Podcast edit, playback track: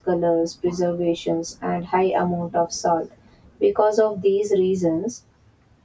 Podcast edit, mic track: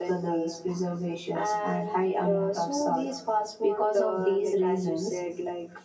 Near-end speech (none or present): present